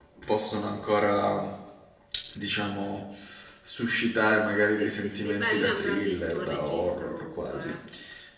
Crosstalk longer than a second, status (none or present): present